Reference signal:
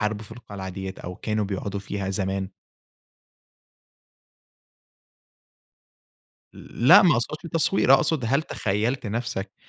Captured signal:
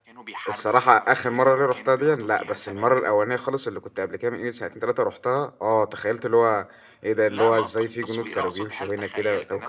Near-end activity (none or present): present